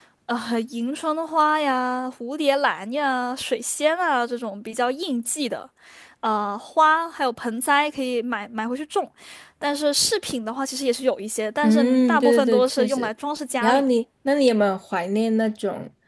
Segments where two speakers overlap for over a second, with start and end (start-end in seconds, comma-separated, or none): 11.6-13.1